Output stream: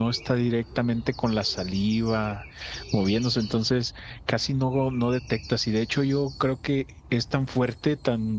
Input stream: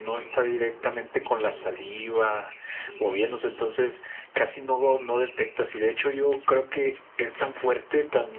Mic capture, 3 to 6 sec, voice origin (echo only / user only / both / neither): echo only